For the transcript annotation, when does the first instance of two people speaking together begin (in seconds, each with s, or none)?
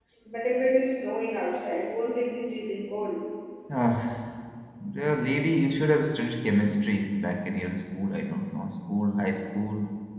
none